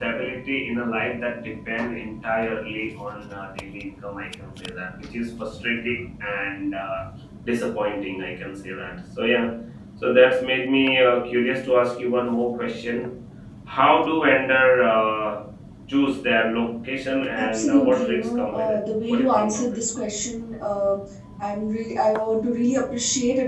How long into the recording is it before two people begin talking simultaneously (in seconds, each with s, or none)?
17.4 s